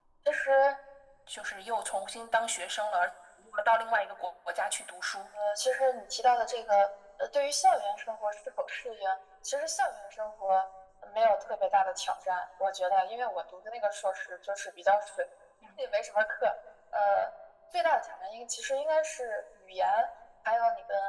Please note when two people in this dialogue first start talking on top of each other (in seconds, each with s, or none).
none